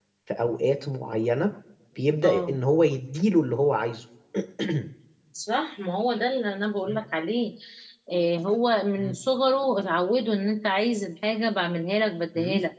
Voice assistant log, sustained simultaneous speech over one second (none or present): none